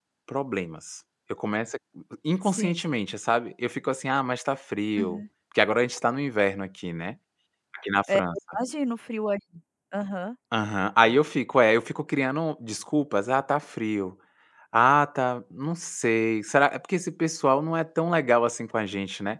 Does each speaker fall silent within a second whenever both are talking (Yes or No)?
Yes